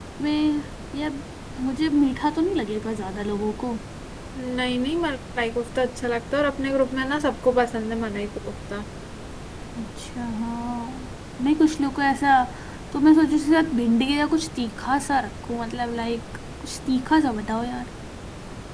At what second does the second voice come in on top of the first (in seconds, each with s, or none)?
none